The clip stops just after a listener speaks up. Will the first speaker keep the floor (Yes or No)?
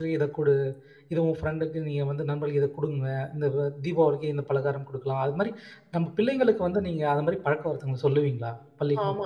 No